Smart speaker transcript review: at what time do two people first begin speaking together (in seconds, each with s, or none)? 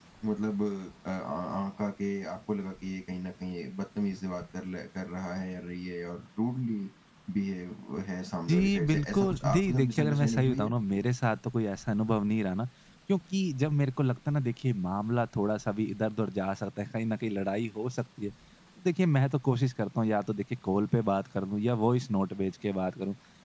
8.5 s